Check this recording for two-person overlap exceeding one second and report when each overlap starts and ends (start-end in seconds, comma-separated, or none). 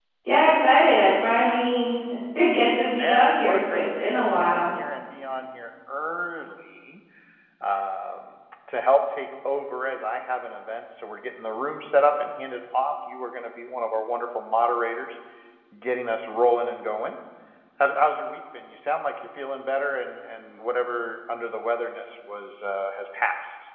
3.0-4.7